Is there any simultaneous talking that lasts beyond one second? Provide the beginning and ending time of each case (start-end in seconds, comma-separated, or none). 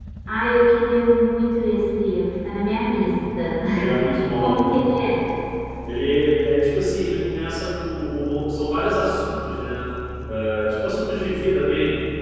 none